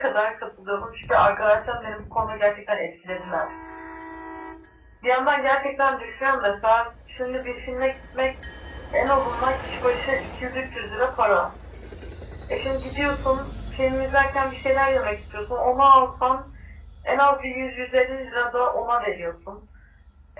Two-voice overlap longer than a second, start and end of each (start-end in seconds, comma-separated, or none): none